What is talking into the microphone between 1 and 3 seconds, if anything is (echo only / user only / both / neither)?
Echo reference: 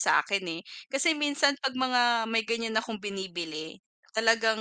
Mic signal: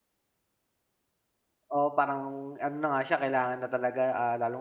user only